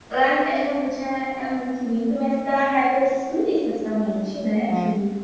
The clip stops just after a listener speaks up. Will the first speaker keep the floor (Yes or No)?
Yes